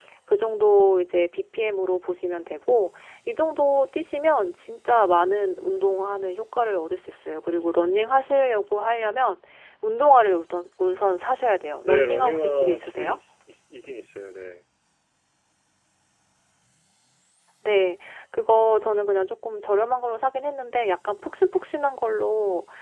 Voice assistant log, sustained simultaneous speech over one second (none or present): present